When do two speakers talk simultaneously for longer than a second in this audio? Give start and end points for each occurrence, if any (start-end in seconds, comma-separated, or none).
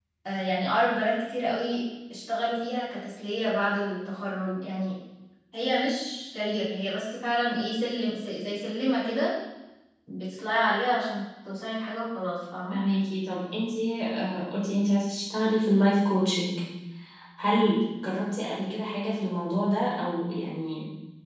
none